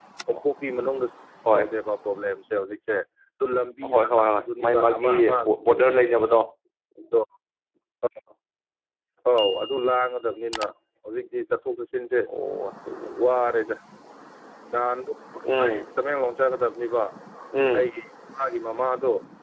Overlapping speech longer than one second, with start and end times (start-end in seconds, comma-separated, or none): 3.9-5.4